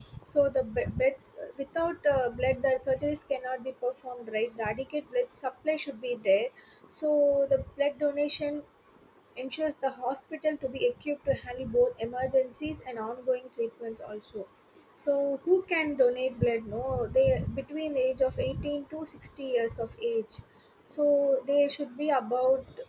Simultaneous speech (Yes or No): No